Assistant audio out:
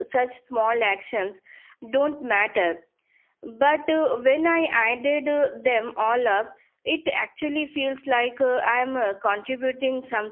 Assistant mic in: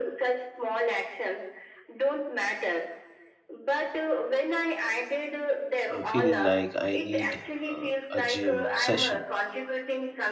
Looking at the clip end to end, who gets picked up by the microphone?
both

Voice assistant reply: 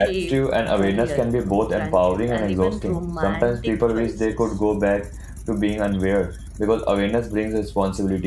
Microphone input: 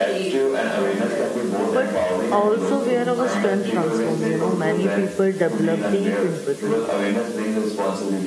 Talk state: both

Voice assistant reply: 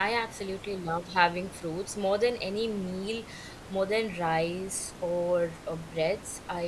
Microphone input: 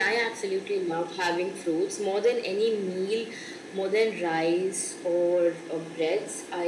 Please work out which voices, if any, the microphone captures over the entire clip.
echo only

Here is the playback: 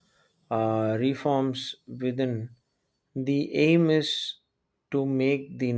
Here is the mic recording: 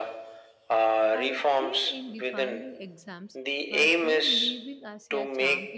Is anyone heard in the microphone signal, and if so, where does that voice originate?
both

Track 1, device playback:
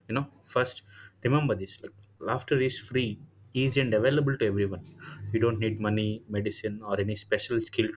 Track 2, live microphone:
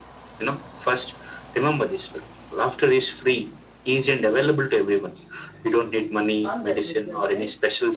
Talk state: both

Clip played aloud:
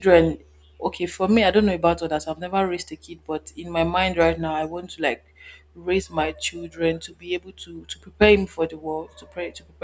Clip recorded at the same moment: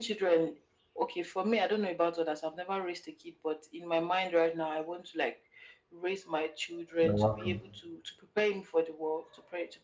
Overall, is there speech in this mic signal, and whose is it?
both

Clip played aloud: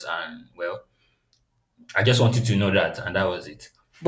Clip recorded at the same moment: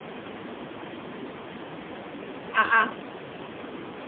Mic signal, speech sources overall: user only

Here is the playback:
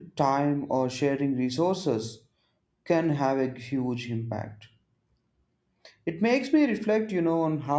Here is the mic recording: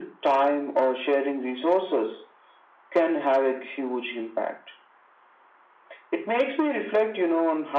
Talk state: echo only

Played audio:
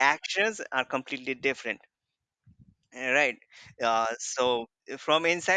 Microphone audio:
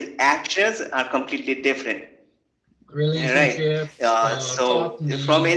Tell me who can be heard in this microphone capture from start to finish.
both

